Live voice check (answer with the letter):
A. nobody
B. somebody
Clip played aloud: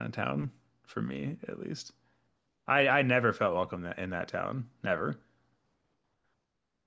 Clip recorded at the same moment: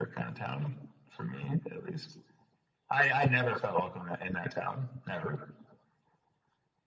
A